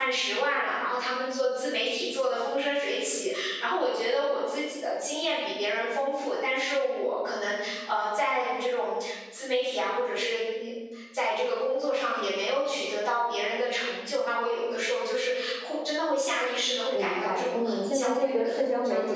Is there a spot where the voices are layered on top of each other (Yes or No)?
Yes